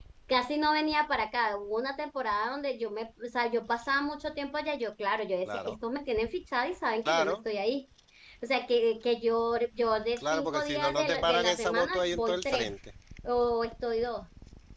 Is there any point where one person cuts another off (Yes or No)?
Yes